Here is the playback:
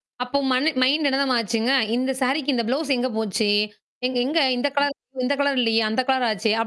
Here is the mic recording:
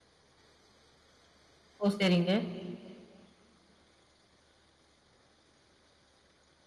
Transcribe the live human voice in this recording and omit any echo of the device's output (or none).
ஓ! சரிங்க.